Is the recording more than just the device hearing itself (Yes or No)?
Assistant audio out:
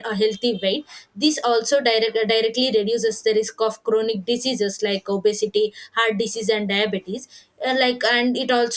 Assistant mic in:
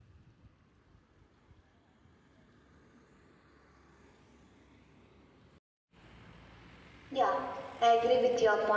Yes